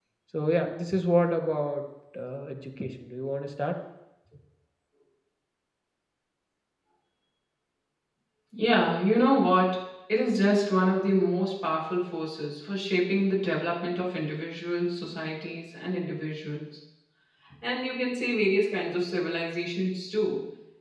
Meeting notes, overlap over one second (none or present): none